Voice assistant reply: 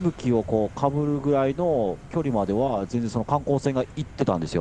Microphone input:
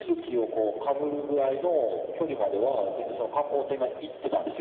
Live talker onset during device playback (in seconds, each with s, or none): none